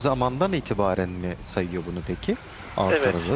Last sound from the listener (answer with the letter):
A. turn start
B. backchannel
A